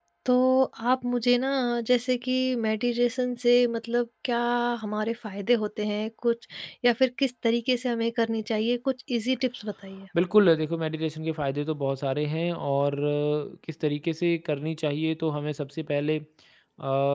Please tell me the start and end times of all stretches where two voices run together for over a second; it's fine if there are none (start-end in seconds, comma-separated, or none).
none